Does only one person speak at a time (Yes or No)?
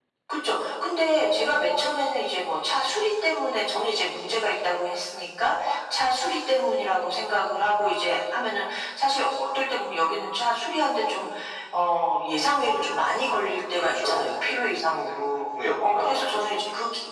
No